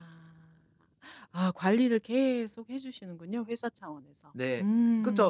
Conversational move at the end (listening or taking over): taking over